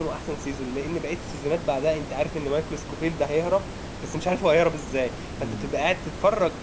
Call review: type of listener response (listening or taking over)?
listening